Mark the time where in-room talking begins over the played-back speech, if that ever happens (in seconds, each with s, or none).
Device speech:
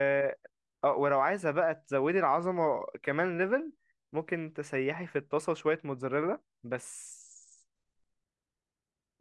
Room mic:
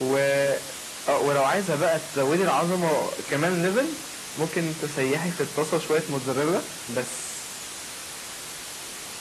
none